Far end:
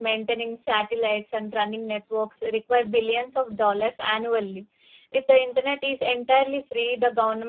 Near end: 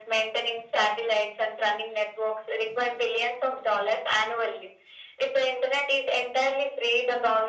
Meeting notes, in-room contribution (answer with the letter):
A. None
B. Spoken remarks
A